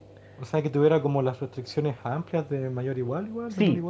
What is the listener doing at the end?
taking over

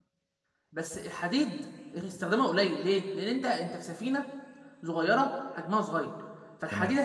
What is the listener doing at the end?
listening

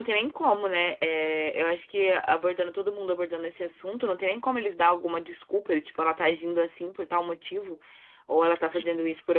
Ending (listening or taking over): listening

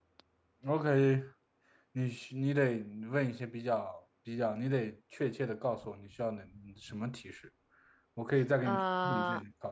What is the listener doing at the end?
listening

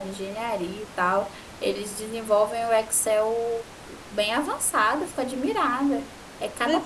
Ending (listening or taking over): taking over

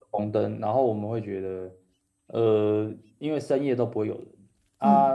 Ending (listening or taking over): listening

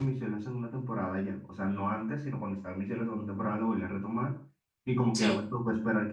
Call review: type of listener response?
listening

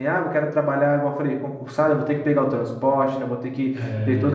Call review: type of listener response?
listening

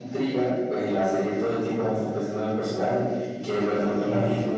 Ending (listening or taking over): listening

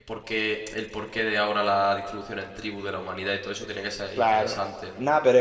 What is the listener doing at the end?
taking over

